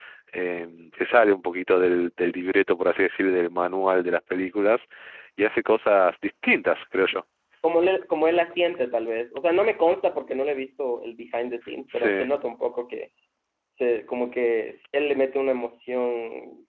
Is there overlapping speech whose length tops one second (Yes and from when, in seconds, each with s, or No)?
No